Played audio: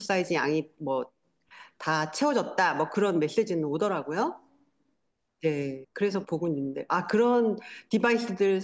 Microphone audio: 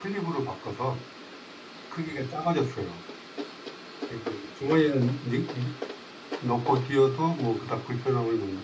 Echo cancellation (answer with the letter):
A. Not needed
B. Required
A